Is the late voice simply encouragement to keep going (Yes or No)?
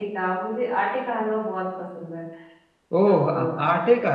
No